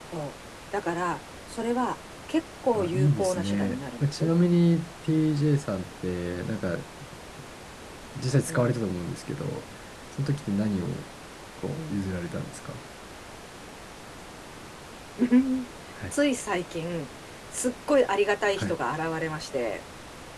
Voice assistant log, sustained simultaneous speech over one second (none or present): present